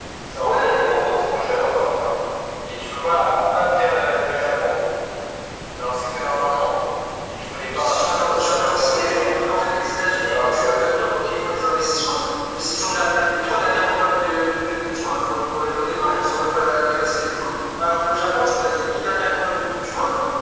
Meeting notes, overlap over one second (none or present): present